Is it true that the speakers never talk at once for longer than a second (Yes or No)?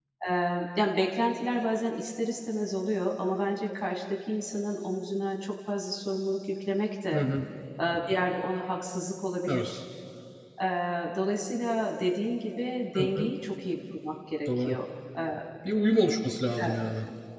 Yes